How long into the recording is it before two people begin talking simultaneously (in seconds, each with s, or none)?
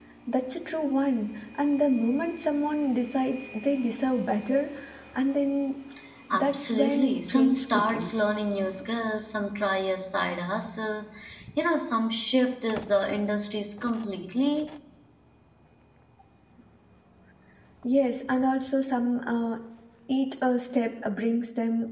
6.3 s